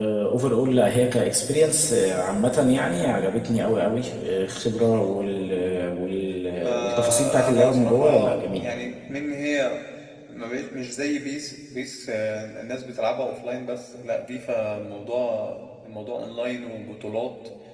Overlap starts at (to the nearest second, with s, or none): 7 s